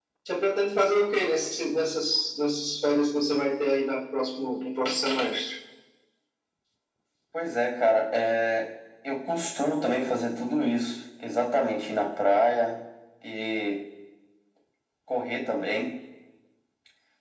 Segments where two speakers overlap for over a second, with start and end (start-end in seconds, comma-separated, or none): none